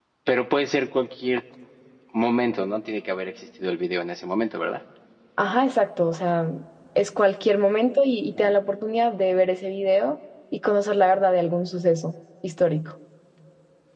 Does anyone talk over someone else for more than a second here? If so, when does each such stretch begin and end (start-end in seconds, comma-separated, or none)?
none